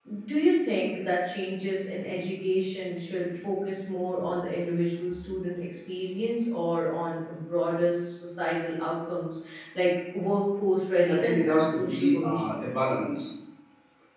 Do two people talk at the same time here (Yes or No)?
Yes